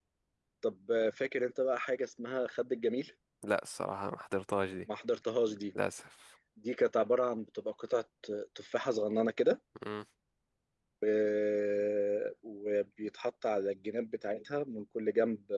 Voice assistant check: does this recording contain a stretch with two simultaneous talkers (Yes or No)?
No